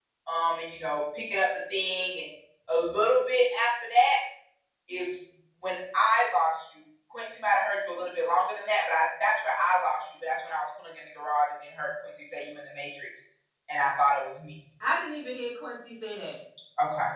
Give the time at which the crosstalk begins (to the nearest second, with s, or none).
none